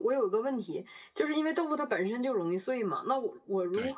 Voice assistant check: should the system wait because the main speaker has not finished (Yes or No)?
Yes